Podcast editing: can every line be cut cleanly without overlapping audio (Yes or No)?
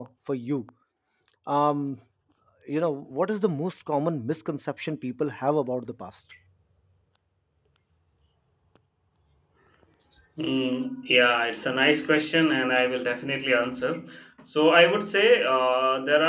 Yes